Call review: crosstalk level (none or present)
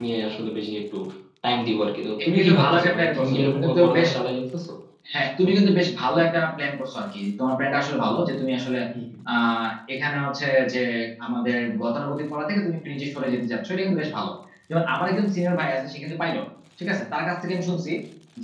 present